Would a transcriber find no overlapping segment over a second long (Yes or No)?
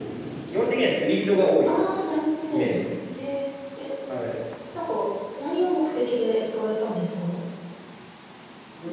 Yes